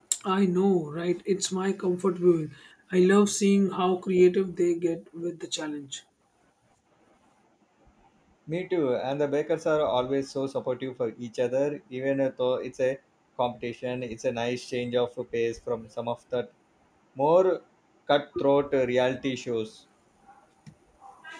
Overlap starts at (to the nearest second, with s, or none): none